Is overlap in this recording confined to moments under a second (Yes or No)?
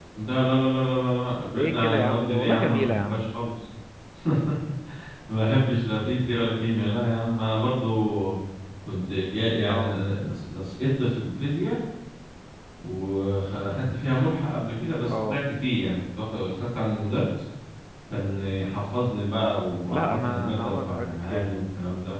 No